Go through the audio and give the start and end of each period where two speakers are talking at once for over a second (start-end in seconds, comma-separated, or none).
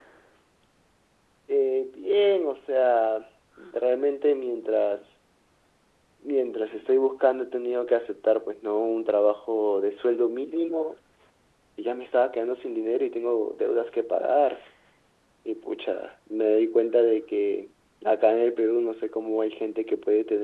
none